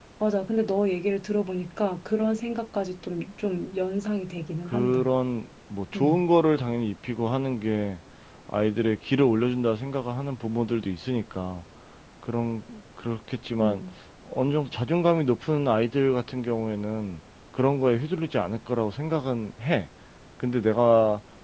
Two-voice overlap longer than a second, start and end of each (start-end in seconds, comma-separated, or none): none